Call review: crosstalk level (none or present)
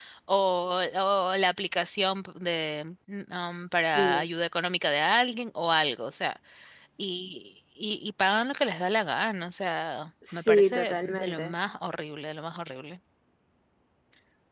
present